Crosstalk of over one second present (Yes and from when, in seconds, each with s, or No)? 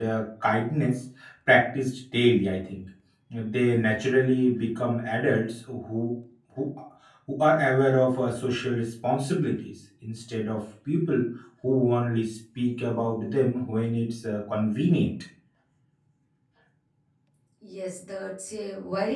No